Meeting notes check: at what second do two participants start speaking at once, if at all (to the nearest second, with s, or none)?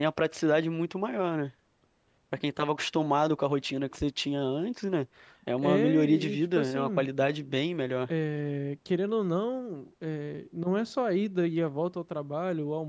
6 s